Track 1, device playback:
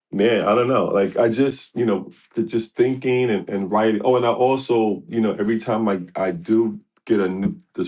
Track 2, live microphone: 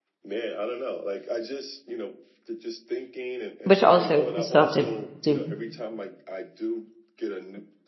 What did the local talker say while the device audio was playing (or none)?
Which also we still have to do.